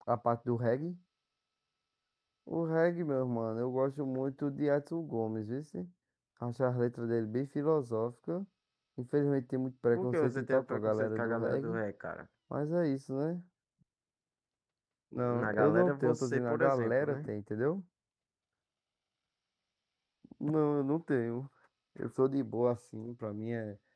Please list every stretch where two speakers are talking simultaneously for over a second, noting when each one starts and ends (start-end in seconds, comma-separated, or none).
9.9-11.8, 15.2-17.3